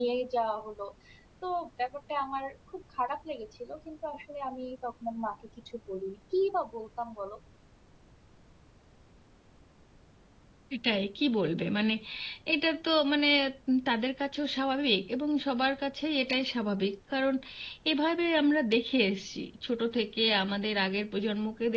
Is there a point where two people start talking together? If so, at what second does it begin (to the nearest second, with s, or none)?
none